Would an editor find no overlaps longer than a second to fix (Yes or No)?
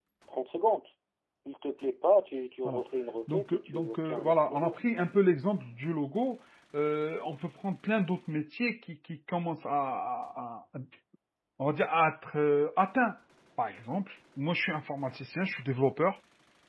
No